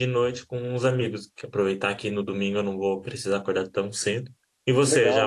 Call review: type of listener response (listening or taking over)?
taking over